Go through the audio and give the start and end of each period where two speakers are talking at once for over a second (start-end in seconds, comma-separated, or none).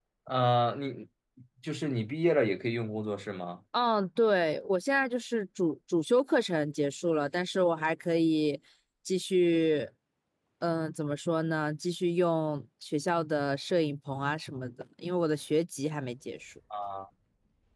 none